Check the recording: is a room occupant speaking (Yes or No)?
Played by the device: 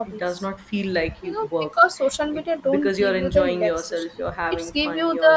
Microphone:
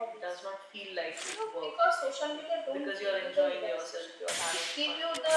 No